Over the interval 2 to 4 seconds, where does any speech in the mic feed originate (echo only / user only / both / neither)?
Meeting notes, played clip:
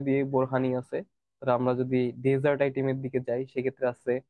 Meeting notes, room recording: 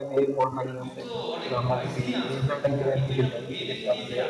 both